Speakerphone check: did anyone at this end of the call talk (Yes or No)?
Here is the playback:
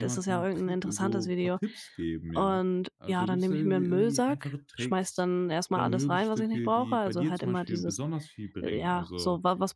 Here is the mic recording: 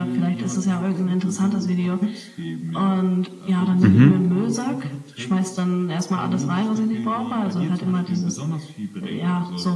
Yes